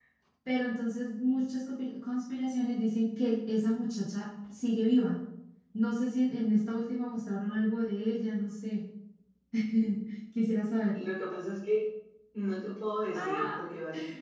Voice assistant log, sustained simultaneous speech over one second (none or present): none